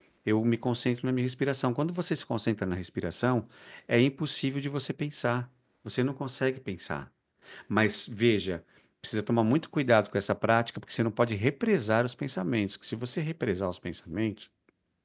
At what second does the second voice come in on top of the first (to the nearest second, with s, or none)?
none